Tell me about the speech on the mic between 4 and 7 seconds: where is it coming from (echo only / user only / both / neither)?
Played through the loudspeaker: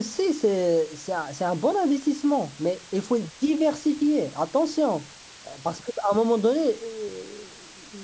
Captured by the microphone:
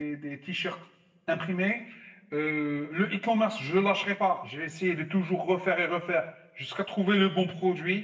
user only